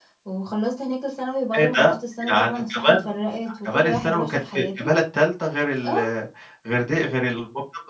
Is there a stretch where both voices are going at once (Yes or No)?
Yes